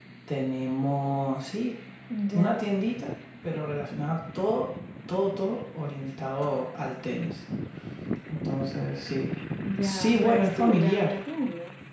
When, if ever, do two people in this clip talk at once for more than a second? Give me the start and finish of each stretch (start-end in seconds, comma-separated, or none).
9.8-11.2